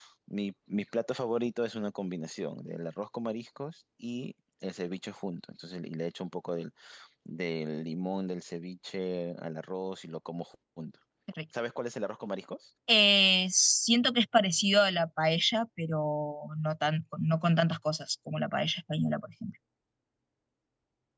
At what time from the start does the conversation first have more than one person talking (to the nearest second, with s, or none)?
none